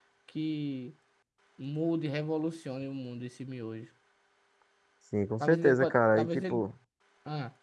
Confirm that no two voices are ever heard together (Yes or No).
No